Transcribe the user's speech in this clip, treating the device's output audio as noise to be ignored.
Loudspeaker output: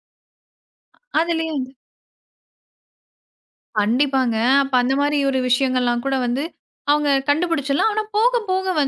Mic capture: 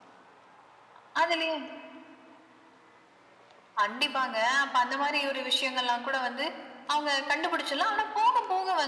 none

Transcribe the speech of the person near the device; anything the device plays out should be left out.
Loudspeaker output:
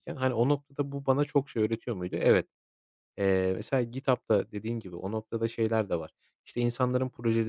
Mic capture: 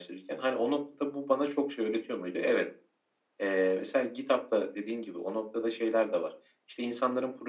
none

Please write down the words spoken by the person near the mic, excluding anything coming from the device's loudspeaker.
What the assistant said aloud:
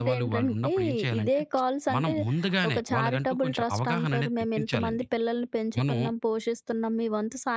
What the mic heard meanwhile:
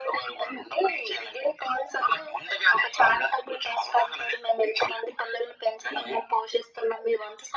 none

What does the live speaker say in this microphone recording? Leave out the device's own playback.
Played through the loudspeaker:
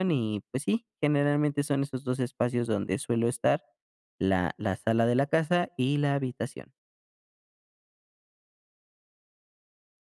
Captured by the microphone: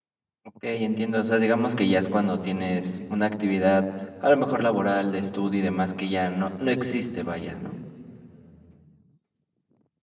Okey, entiendo, o sea, digamos que ya es cuando tienes una actividad, a lo mejor laboral, de estudio y demás, que ya no no existe, vaya, ¿no?

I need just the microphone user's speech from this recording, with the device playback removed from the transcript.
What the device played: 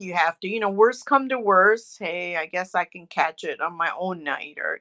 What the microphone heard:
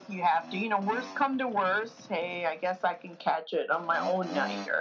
none

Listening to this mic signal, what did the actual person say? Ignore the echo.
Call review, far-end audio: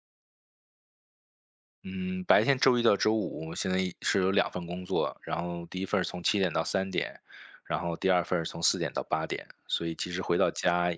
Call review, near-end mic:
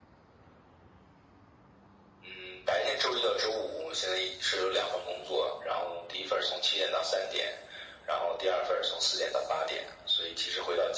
none

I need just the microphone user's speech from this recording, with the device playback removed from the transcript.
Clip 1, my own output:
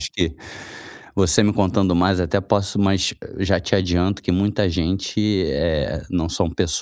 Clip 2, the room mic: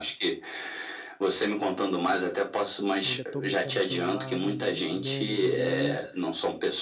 e ainda tô mexendo no celular, vendo meme, vendo reels.

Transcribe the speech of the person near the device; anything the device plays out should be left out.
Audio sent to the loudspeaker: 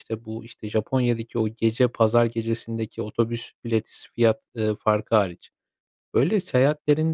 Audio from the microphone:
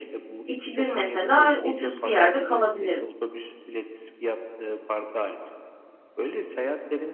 iki gün mesela ucuz bir yerde kalabilirim.

